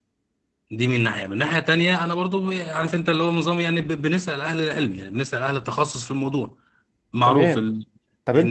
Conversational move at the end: taking over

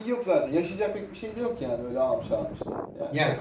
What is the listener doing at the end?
taking over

